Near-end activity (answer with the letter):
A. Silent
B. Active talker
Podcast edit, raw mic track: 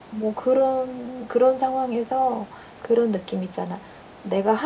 A